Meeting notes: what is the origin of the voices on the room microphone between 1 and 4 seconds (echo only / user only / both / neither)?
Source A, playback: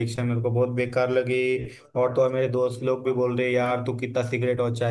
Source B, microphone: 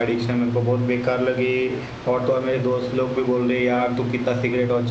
echo only